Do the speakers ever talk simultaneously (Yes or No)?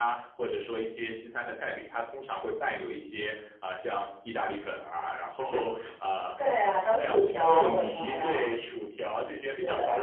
Yes